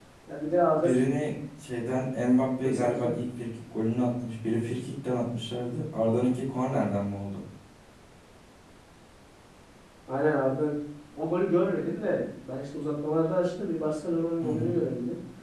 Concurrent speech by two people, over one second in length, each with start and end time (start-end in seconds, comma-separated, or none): none